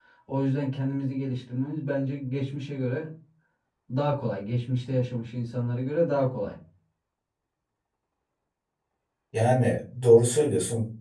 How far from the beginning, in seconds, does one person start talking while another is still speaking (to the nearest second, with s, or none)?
none